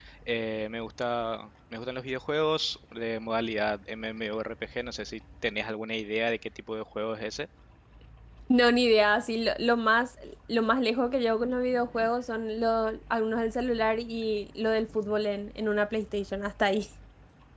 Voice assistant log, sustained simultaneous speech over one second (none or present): none